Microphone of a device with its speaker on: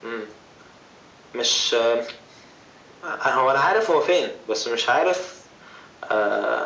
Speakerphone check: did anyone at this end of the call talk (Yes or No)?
No